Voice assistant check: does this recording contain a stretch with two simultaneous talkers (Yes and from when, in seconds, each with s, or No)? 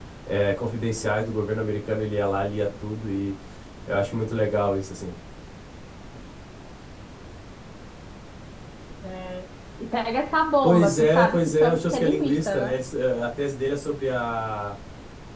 Yes, from 10.6 s